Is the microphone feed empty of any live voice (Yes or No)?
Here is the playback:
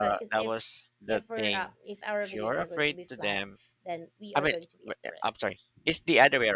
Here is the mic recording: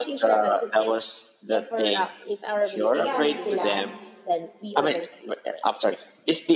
No